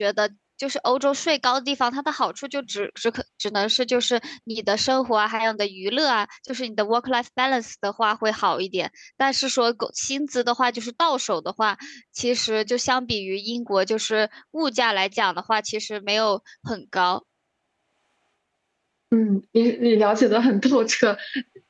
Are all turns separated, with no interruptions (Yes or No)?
Yes